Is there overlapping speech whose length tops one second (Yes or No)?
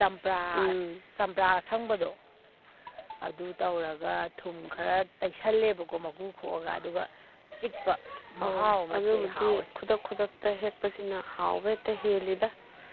Yes